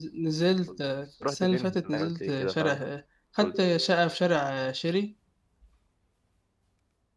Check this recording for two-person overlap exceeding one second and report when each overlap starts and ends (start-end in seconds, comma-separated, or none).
1.2-2.8